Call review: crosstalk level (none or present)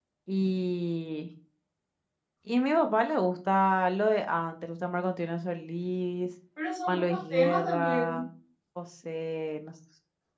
present